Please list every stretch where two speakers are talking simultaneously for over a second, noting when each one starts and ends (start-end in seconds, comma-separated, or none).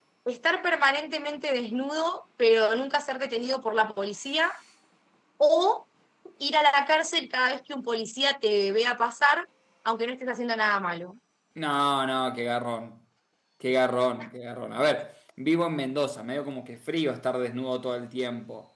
none